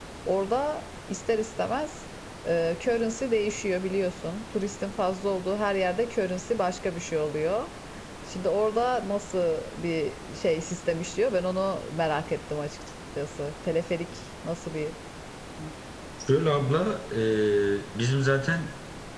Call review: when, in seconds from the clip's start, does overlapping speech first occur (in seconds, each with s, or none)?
none